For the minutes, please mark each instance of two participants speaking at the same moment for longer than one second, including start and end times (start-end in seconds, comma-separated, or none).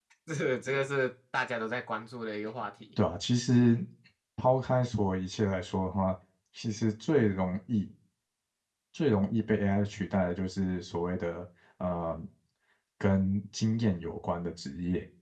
none